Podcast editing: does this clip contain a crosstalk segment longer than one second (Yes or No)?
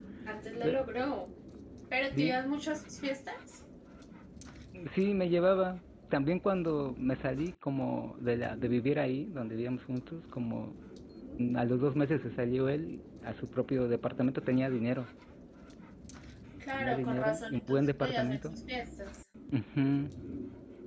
Yes